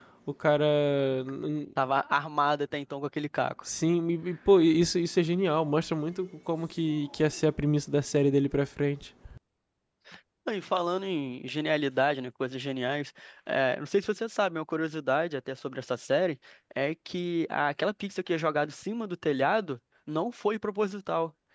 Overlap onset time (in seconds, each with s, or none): none